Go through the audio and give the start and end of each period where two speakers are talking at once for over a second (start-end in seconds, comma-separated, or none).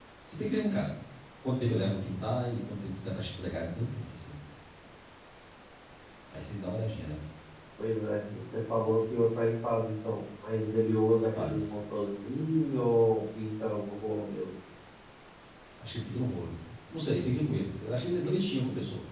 none